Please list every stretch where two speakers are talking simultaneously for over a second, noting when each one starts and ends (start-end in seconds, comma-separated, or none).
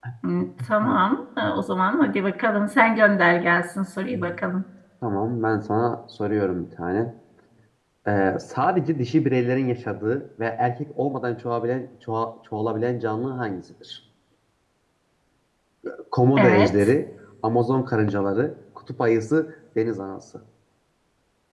none